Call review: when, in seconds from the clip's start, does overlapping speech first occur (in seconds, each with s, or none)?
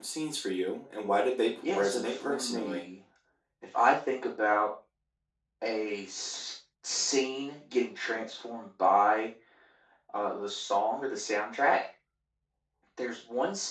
1.6 s